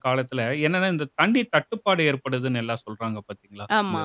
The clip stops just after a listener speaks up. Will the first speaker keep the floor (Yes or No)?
Yes